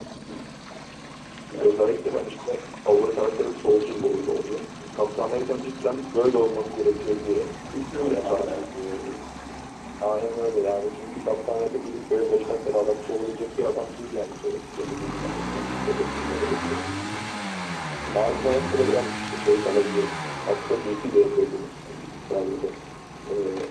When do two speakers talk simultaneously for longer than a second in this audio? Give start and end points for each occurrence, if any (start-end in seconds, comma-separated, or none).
none